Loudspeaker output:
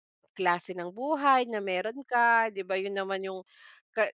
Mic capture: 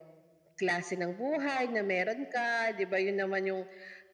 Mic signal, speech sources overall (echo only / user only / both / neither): echo only